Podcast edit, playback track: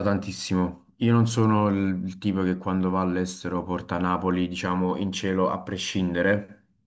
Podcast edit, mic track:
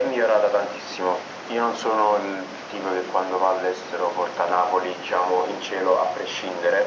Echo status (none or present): present